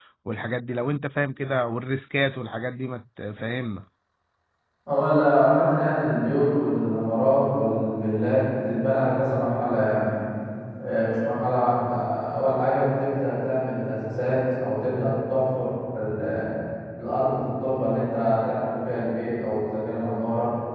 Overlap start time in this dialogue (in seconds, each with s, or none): none